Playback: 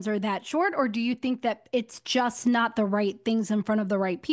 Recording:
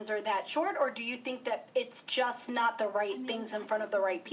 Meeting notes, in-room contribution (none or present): present